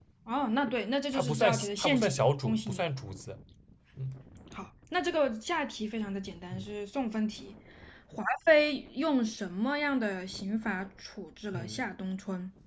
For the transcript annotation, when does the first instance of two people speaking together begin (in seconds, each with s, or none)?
1.1 s